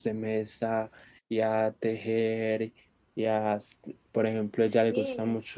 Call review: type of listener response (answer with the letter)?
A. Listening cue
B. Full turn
A